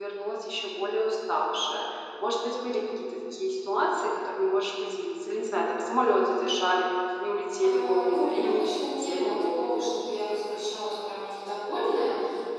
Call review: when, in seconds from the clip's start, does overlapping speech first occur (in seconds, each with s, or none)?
7.6 s